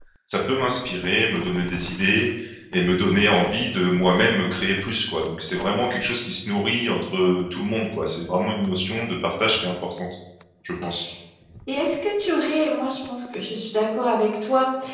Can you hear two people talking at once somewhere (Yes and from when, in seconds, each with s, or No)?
No